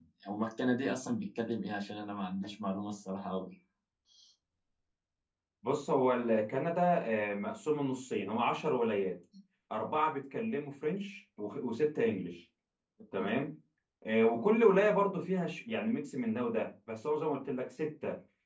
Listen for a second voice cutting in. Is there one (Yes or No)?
No